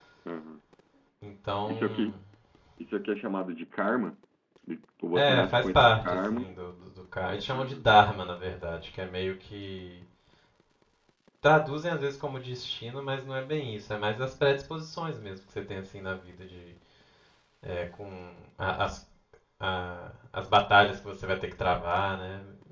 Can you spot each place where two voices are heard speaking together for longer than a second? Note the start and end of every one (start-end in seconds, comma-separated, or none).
5.1-6.4